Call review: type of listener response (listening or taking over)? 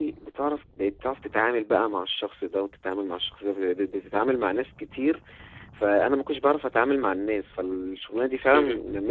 listening